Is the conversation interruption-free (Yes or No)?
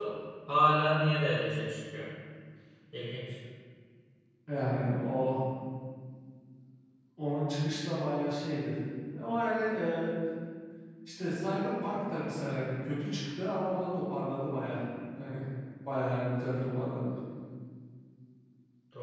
Yes